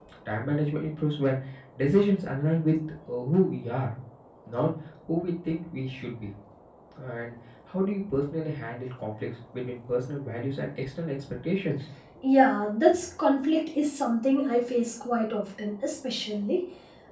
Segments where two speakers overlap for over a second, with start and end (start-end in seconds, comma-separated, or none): none